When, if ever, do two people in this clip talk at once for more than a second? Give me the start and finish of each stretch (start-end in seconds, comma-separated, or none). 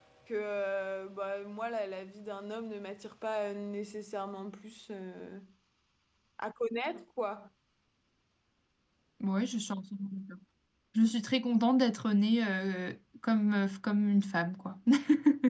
none